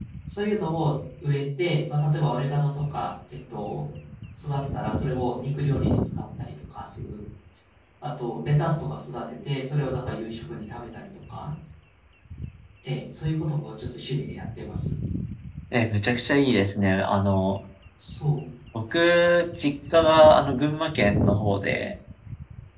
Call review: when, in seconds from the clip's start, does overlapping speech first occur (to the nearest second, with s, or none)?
none